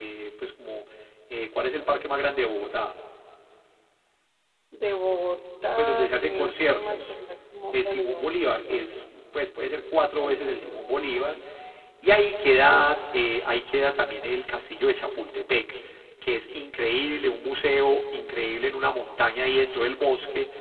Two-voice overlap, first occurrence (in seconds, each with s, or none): 5.8 s